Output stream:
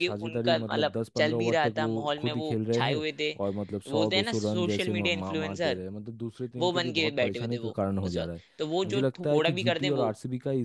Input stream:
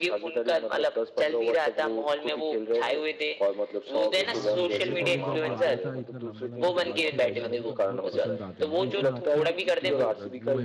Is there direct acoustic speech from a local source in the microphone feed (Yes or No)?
Yes